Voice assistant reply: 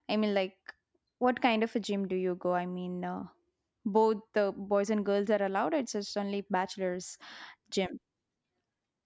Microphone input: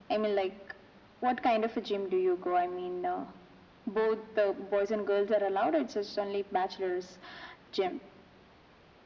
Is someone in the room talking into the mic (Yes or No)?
No